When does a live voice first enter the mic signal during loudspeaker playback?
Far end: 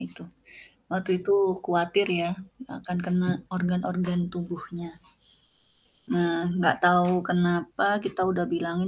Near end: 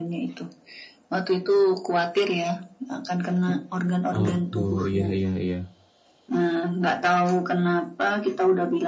4.2 s

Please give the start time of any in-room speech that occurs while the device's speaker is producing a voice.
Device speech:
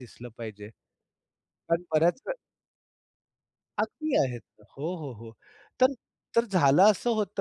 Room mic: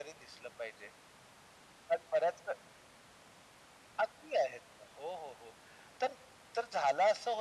none

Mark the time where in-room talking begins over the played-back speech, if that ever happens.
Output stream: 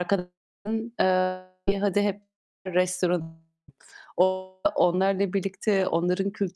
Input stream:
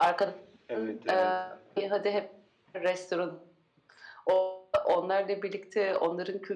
0.7 s

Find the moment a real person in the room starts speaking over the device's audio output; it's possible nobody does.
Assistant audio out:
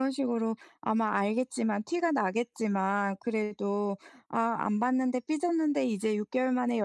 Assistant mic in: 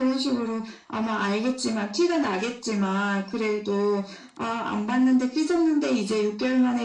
none

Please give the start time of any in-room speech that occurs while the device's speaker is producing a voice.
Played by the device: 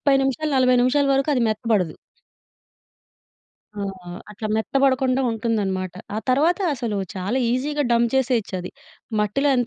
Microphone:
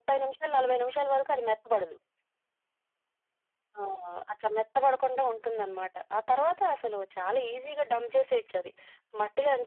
none

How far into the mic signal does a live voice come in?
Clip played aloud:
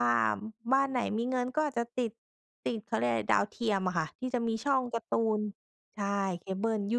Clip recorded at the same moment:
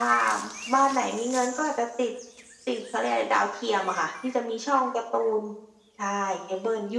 none

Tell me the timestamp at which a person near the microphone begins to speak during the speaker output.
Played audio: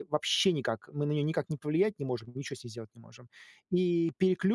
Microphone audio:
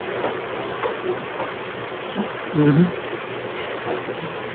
2.5 s

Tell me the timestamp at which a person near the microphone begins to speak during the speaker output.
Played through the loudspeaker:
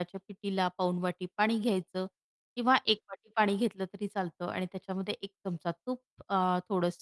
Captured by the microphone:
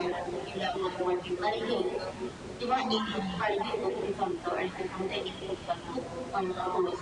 2.8 s

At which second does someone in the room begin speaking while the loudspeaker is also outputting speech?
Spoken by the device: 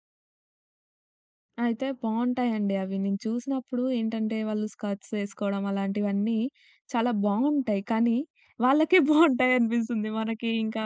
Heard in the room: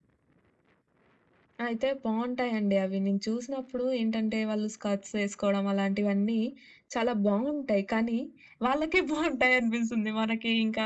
none

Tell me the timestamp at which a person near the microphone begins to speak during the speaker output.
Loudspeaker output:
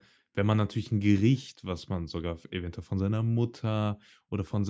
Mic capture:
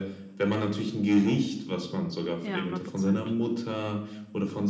2.4 s

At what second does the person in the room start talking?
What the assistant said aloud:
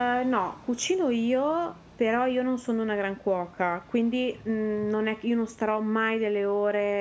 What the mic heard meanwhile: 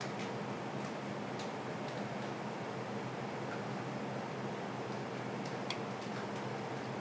none

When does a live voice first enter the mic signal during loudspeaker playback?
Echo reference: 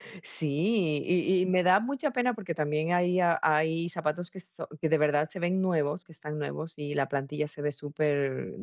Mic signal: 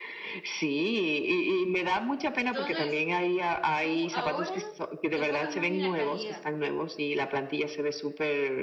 2.4 s

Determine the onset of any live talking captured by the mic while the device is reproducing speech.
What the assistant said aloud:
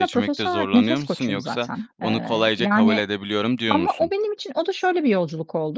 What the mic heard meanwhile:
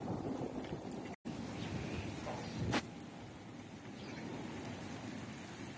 none

